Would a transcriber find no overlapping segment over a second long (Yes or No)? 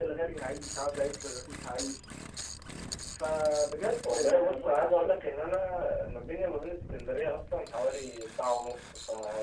No